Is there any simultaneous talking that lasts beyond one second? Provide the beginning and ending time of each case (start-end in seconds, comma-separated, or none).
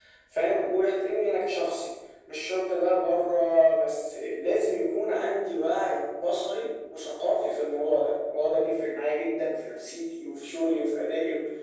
none